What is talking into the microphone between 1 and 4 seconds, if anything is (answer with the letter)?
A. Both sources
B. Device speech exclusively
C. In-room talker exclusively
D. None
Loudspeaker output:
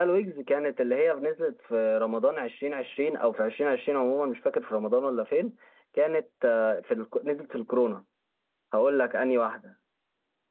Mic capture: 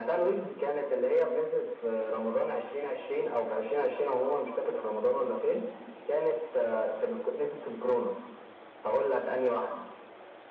B